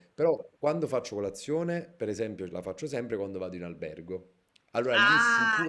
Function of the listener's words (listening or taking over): taking over